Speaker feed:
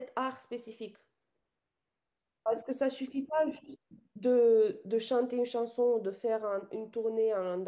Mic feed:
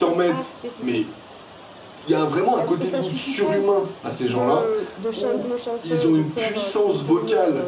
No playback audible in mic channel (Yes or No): No